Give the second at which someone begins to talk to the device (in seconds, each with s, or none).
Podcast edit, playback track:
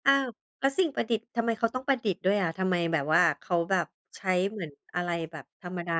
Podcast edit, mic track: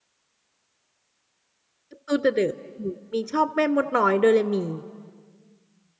1.9 s